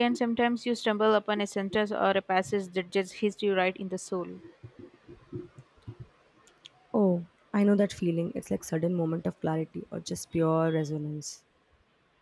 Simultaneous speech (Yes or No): No